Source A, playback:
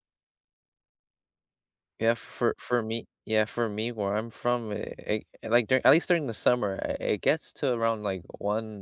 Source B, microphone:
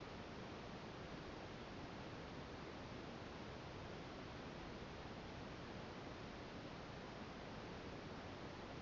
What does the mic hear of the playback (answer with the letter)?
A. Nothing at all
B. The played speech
A